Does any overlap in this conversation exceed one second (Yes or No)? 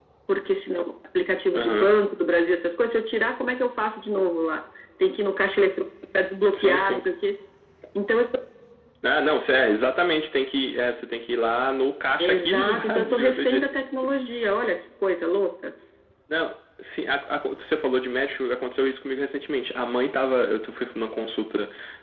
Yes